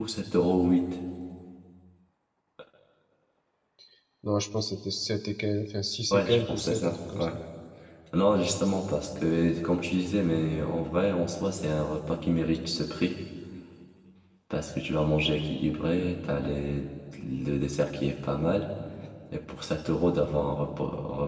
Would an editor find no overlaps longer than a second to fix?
No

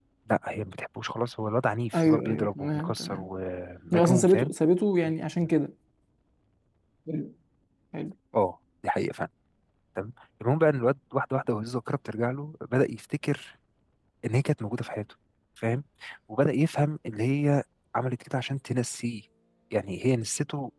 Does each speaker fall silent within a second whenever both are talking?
No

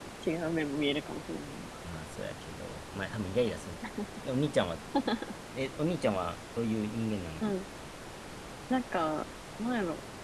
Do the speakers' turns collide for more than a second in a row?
No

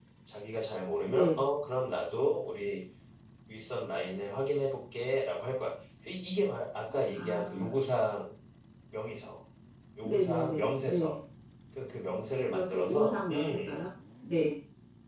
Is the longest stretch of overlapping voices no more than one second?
No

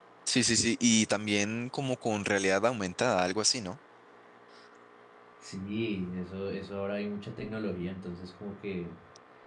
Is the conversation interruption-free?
Yes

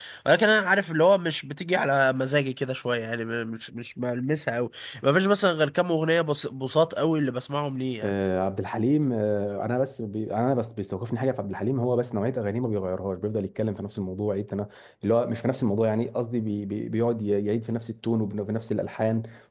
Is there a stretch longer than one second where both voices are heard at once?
No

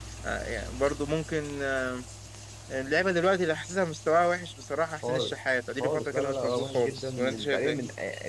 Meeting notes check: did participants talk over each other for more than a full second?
Yes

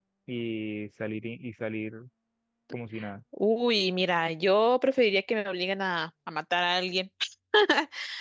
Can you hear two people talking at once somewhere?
No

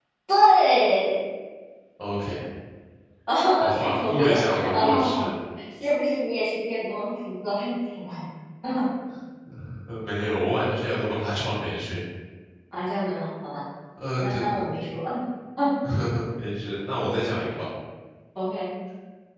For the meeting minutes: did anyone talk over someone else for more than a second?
Yes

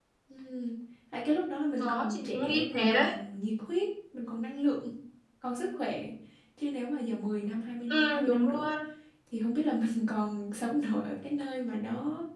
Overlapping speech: Yes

